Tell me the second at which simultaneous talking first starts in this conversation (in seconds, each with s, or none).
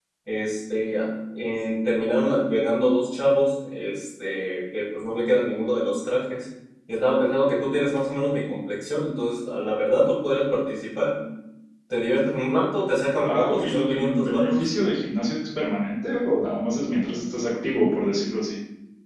13.0 s